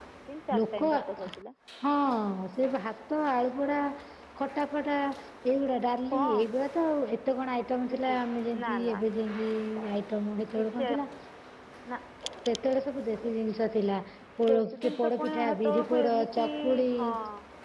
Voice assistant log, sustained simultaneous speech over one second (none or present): present